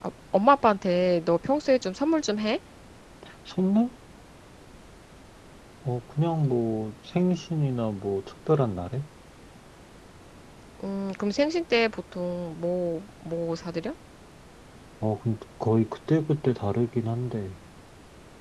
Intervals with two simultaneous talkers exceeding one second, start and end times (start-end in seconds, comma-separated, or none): none